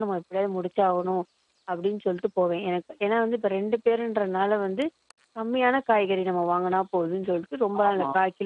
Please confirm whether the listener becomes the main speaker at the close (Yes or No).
No